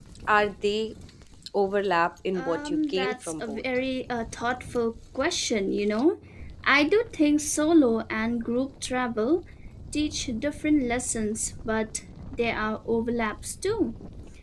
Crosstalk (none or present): present